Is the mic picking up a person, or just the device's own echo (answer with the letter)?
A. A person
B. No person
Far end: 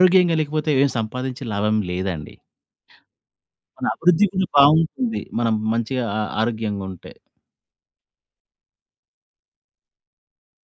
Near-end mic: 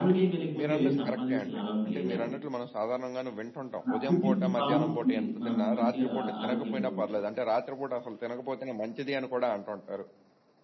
A